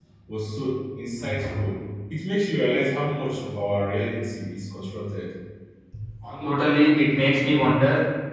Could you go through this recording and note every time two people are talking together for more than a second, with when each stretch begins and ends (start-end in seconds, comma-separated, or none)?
none